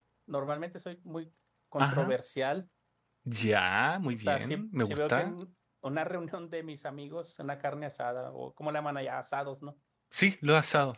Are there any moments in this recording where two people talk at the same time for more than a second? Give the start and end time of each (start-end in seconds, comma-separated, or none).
4.1-5.3